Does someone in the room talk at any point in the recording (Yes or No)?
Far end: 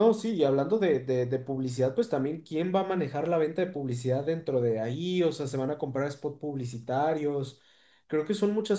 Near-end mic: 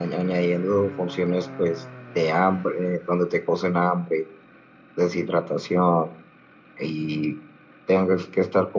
Yes